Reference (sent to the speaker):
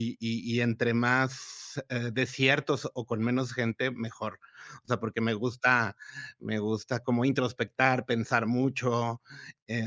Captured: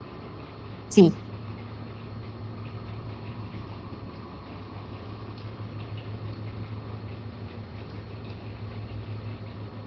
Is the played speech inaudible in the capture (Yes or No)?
Yes